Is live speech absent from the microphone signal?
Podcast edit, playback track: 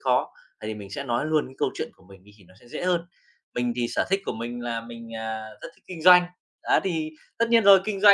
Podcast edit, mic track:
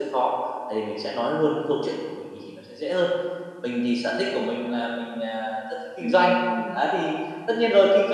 No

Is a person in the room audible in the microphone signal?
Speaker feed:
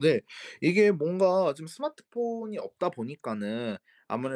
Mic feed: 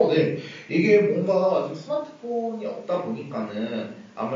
No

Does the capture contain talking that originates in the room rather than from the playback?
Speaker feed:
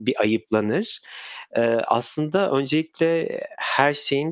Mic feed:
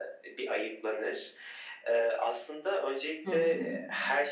Yes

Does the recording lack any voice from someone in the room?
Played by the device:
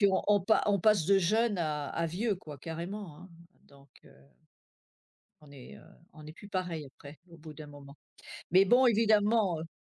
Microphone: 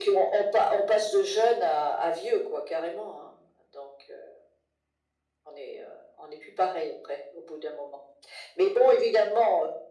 Yes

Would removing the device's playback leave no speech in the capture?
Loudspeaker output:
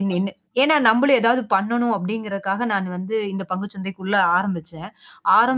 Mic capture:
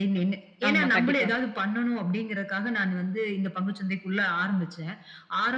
No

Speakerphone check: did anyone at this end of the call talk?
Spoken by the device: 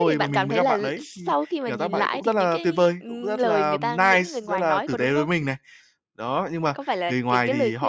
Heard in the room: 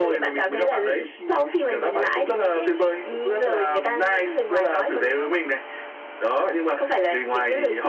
No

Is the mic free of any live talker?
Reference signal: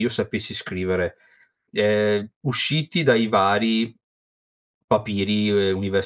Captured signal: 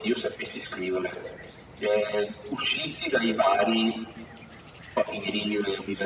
Yes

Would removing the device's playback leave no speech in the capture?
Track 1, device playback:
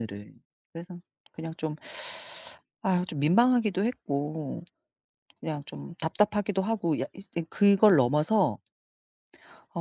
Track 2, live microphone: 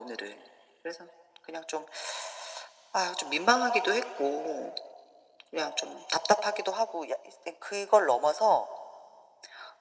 Yes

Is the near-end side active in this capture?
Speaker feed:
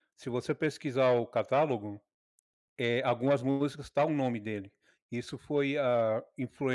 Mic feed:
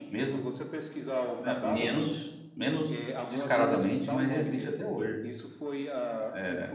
Yes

